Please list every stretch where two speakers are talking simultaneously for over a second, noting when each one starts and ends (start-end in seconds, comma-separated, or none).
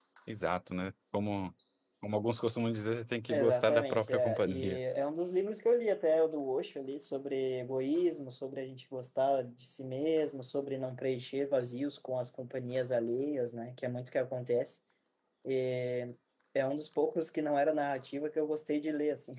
3.3-4.8